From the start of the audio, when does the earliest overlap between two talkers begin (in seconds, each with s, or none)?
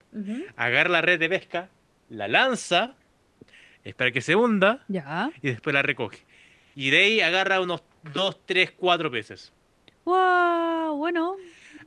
none